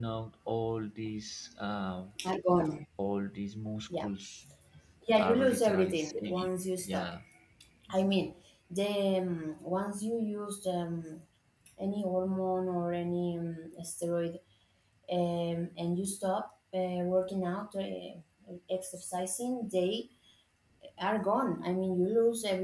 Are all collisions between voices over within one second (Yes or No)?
No